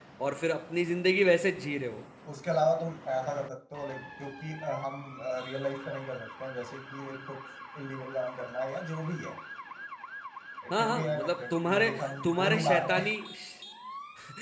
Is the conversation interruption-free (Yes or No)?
No